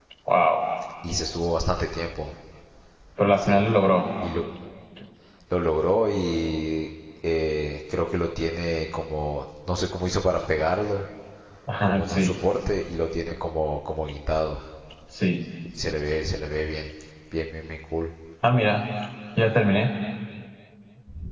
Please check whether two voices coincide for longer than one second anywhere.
No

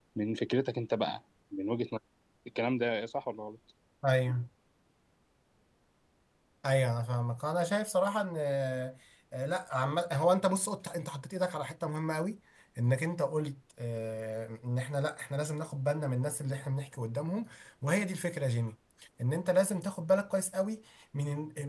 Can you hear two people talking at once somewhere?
No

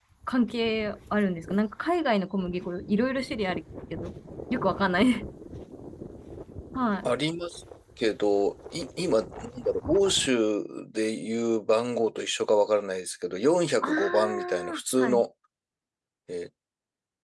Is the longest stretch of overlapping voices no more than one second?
No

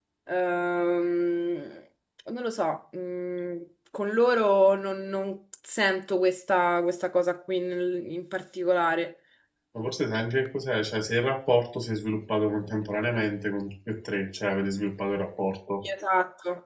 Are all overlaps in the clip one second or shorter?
Yes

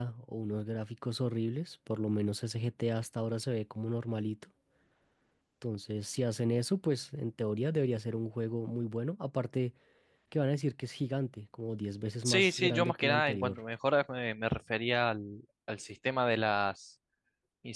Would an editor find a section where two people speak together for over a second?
Yes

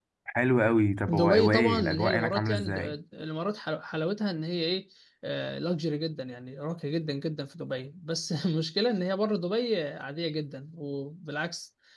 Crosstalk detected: Yes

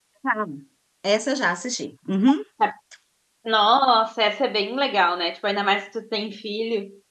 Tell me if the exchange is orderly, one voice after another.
Yes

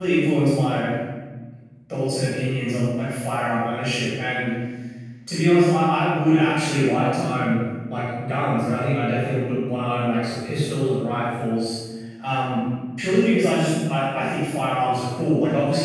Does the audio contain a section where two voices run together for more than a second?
No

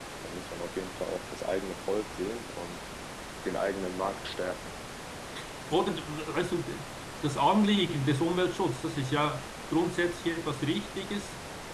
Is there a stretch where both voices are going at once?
No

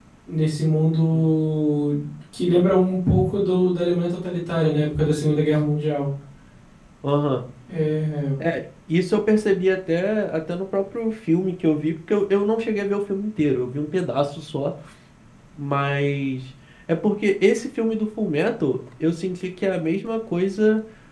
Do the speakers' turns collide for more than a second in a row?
No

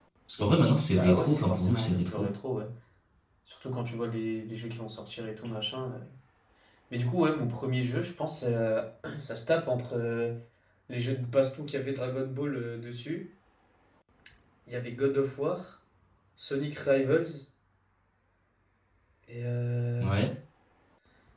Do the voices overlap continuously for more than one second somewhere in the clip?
Yes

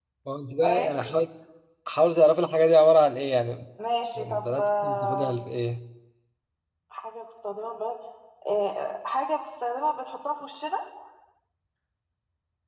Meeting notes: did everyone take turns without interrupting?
No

